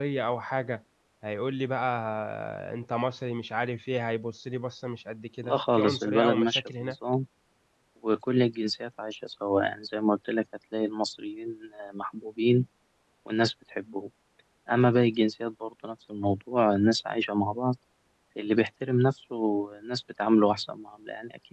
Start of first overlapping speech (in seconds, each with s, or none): 5.4 s